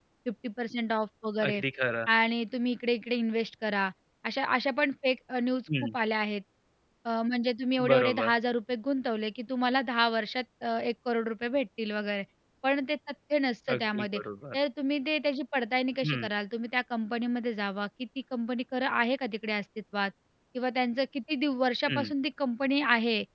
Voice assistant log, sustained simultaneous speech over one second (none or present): none